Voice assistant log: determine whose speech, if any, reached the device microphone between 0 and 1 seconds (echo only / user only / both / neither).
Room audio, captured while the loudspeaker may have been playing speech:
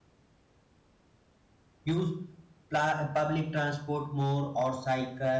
neither